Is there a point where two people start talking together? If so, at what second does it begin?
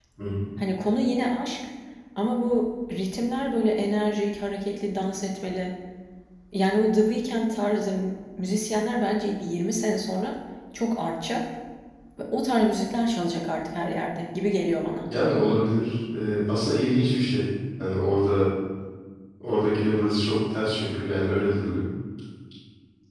none

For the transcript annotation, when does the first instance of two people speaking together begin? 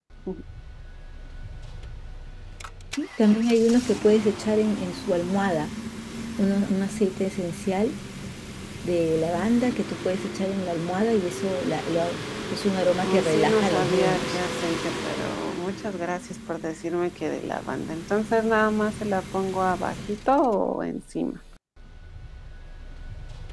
13 s

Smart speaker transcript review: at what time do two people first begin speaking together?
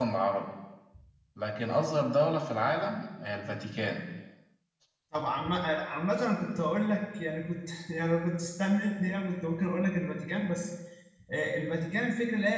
none

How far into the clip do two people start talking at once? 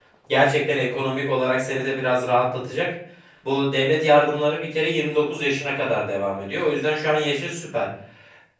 none

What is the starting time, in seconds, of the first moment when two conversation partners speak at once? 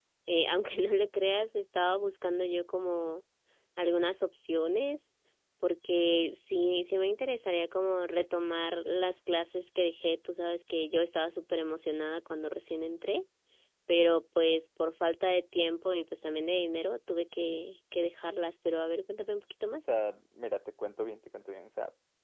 none

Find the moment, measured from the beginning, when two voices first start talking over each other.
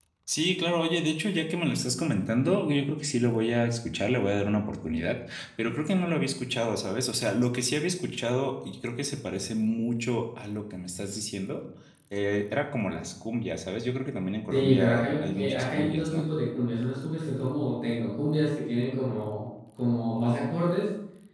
15 s

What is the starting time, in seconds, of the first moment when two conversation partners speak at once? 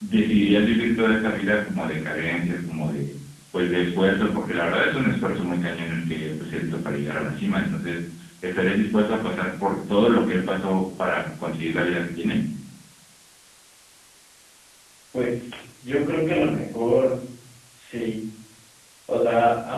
none

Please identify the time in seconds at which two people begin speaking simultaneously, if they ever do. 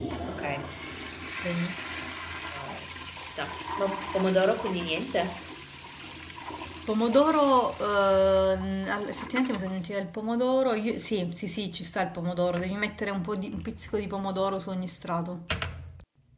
none

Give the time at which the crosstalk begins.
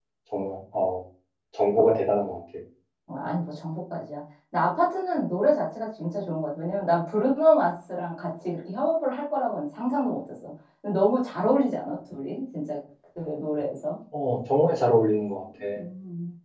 none

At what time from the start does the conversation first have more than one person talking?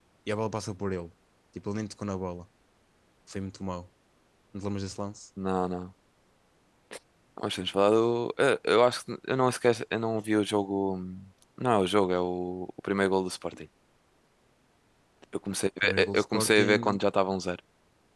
16 s

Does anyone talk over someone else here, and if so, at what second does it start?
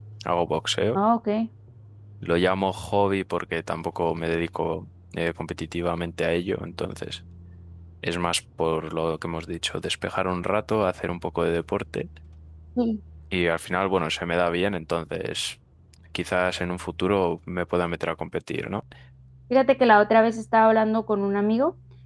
none

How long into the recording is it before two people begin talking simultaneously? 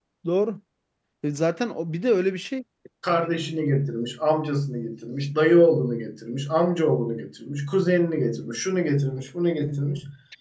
none

